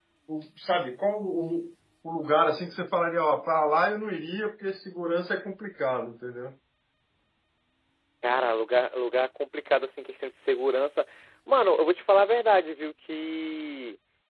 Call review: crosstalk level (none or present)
none